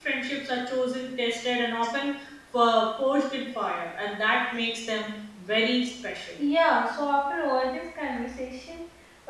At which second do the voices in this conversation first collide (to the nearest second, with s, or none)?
none